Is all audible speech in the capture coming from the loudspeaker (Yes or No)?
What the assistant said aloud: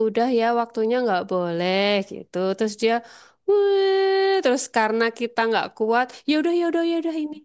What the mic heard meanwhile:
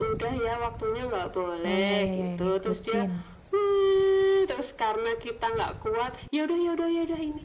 No